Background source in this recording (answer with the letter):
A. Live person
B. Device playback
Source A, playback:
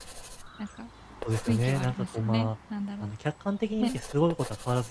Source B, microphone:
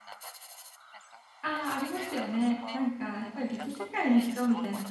B